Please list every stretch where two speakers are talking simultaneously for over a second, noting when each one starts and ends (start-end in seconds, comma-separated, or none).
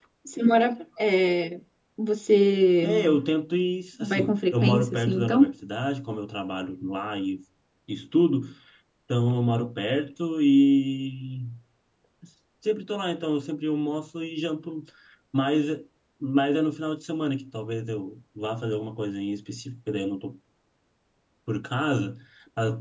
4.0-5.5